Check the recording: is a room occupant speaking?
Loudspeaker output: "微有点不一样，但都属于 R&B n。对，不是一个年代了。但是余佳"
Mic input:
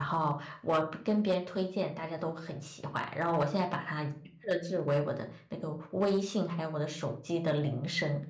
Yes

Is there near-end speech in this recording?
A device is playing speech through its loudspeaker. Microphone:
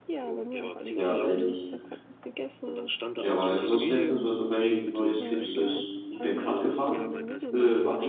Yes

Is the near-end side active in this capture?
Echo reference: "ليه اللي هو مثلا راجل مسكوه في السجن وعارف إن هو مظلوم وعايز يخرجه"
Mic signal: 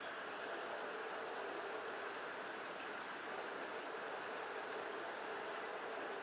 No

